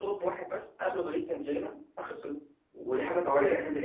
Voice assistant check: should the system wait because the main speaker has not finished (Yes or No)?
Yes